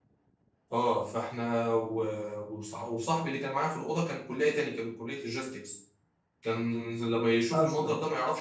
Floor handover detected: No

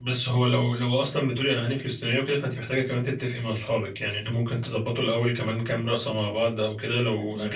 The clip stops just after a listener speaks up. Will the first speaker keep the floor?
Yes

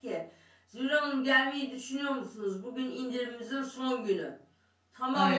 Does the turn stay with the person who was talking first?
Yes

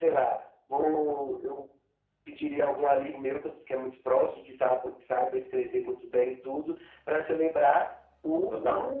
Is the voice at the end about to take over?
No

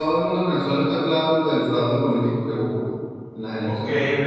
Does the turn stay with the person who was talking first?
No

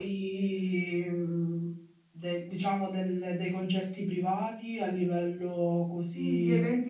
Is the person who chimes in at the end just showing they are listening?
No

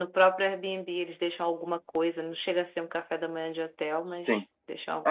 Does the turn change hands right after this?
Yes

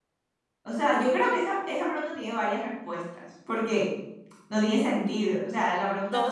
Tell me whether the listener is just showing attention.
No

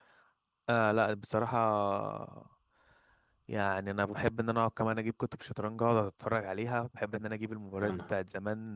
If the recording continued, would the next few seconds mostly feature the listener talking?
No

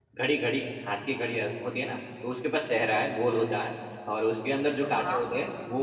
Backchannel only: Yes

